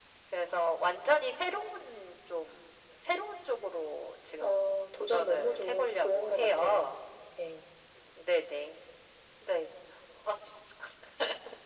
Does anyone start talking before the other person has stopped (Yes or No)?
Yes